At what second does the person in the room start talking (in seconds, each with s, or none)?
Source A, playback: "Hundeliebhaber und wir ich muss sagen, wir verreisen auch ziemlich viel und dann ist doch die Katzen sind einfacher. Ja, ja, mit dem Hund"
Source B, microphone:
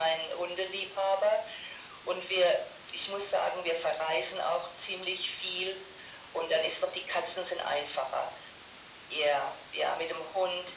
none